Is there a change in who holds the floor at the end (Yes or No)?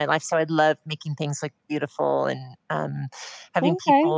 No